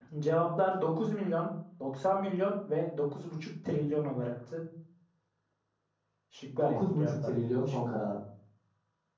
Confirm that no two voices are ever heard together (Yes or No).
No